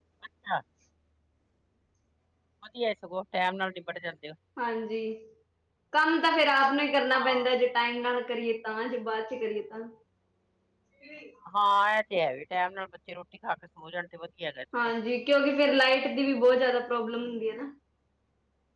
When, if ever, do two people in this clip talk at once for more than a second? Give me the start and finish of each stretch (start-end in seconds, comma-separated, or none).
none